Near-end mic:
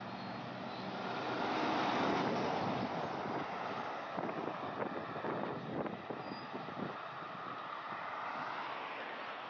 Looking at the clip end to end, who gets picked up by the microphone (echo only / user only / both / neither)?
neither